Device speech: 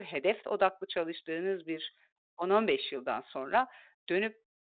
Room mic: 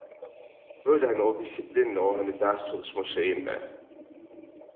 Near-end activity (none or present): present